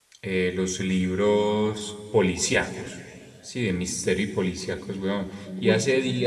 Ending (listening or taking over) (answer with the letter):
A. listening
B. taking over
A